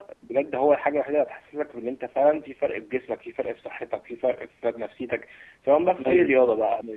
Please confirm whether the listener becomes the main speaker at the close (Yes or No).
No